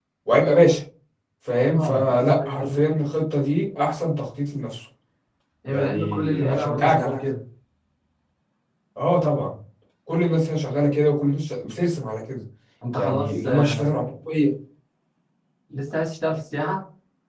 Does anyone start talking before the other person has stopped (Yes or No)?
Yes